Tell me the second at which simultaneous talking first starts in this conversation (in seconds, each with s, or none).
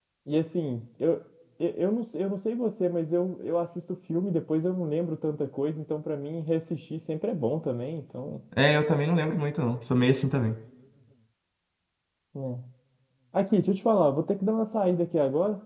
none